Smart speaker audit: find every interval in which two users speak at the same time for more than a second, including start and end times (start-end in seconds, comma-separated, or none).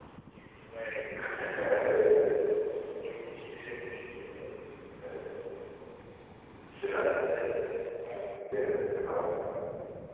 none